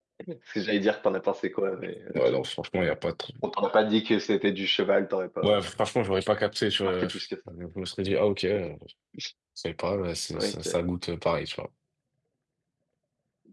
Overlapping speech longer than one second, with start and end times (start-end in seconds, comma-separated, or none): none